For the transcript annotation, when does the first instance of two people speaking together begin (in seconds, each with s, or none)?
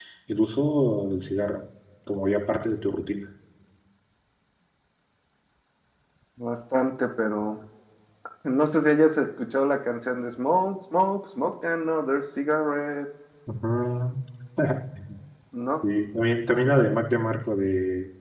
none